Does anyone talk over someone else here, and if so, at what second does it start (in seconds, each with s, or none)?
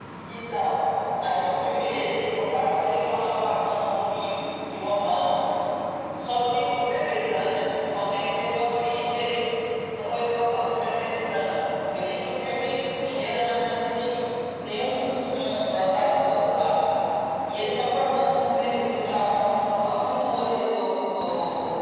none